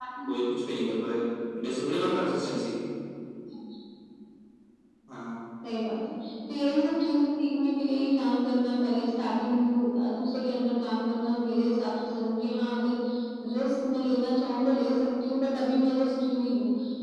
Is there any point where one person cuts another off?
No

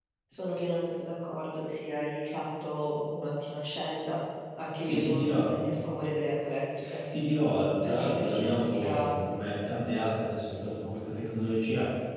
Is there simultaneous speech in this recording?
Yes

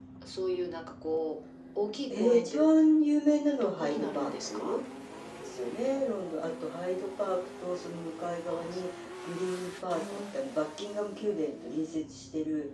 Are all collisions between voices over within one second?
No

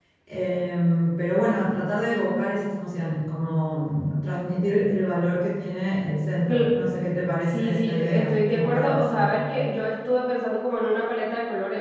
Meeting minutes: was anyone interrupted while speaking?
Yes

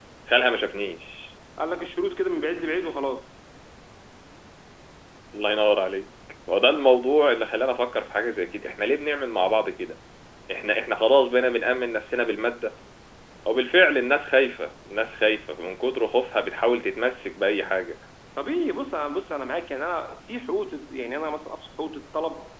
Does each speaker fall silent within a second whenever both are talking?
Yes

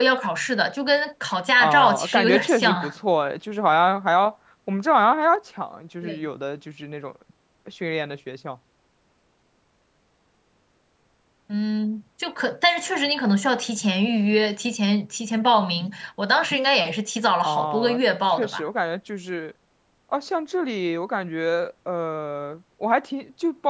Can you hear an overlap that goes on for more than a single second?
Yes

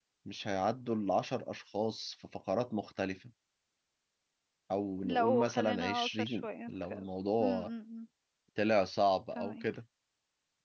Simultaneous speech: Yes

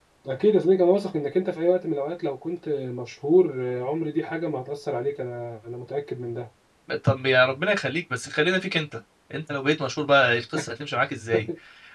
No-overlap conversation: Yes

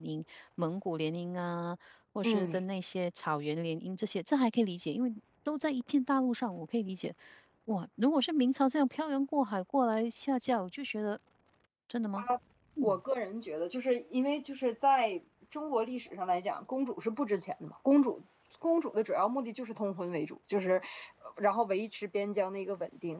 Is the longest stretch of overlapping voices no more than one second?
Yes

